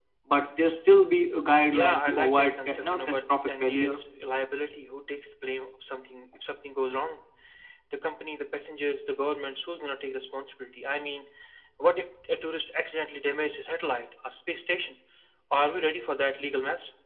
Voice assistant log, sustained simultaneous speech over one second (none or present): present